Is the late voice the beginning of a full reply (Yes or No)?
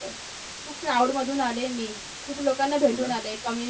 No